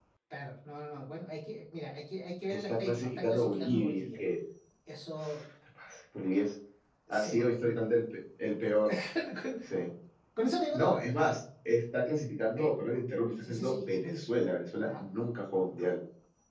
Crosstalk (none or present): present